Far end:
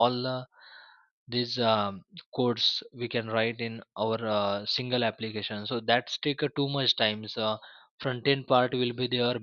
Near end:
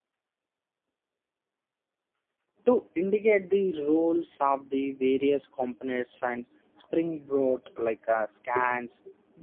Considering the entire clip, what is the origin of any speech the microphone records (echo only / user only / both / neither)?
user only